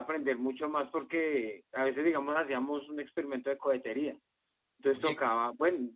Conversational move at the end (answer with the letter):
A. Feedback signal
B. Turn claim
A